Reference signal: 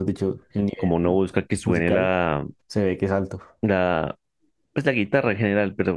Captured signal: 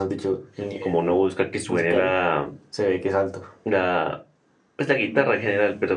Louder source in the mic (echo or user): echo